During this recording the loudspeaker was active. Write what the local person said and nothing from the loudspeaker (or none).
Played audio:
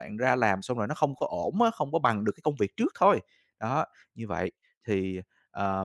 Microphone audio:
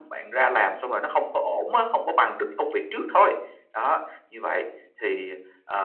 none